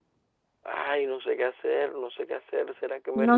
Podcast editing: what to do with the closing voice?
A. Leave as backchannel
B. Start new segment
B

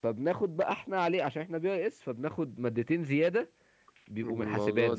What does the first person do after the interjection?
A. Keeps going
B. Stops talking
B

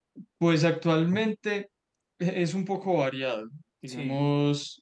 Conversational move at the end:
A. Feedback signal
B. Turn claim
A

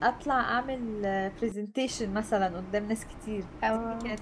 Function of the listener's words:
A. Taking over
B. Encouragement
B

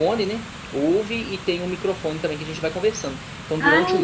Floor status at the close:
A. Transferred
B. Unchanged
B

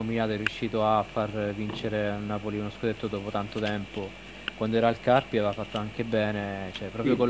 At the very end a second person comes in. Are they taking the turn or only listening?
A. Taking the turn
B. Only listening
B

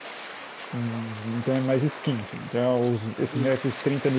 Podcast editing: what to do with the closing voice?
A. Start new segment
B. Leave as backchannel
B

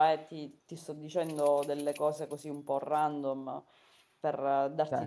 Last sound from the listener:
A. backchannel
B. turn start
A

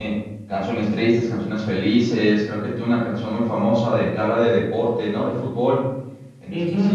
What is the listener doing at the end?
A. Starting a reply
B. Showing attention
A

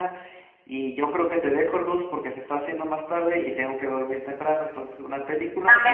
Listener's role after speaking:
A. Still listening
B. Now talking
B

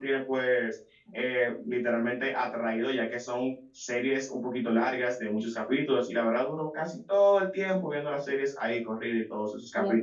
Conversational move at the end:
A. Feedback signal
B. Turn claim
B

